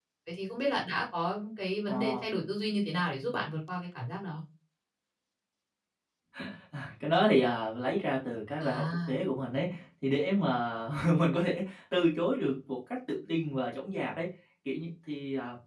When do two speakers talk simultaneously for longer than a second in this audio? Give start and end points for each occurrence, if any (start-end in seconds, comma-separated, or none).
none